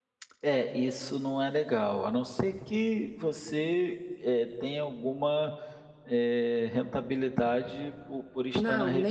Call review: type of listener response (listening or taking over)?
taking over